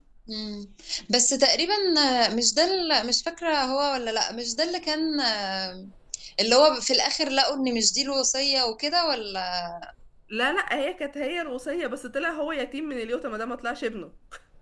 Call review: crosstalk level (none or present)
none